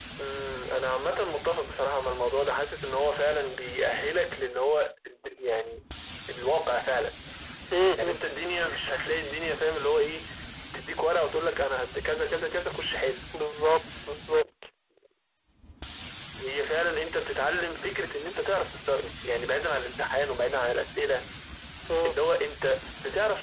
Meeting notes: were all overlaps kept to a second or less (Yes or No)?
Yes